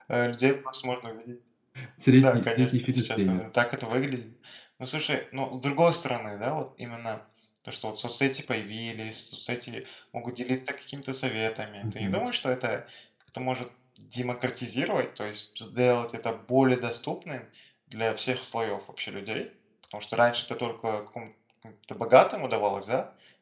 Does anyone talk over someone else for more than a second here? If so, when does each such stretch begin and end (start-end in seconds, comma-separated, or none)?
2.2-3.4